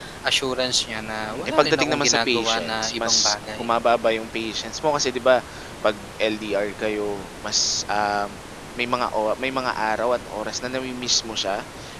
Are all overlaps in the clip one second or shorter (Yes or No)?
No